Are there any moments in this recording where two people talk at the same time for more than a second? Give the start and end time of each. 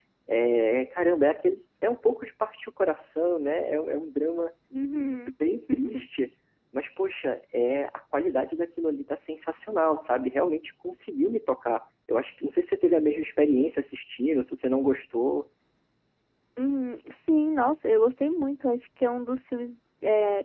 none

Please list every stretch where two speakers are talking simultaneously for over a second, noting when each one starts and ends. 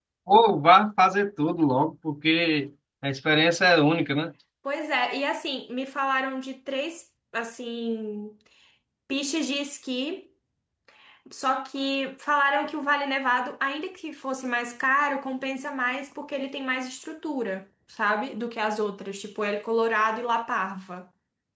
none

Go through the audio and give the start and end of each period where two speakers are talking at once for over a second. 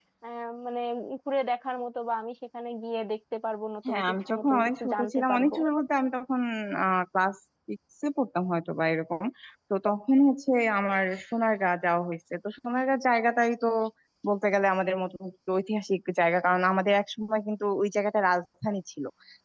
3.9-5.5

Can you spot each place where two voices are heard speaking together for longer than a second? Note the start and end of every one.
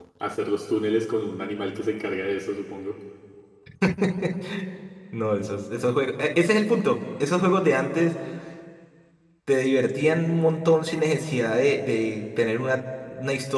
none

